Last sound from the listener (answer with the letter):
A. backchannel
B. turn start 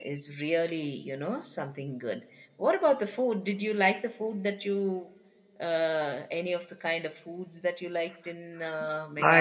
B